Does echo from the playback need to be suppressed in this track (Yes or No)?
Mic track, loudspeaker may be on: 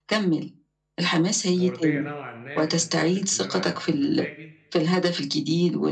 Yes